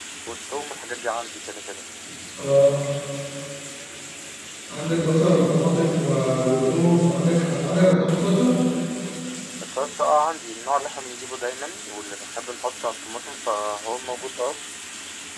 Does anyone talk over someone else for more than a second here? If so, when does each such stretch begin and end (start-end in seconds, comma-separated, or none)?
none